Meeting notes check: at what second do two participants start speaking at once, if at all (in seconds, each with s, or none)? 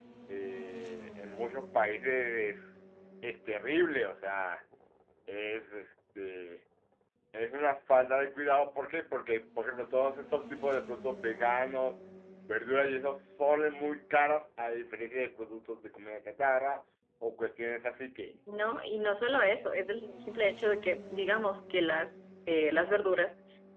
none